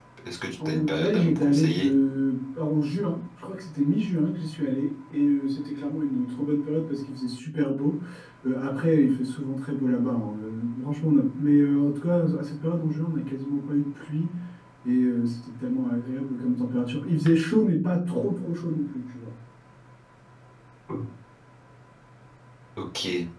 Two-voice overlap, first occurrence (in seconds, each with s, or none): 0.7 s